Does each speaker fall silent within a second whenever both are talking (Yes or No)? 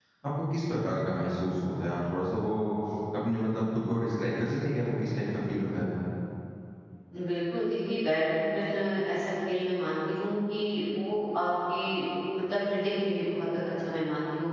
Yes